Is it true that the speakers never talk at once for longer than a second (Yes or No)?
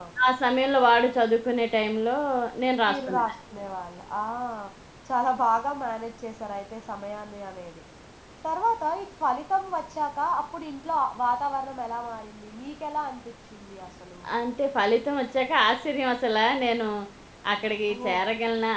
Yes